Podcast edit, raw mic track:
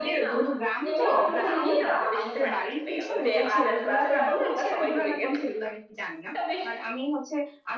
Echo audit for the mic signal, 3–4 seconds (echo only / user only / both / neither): both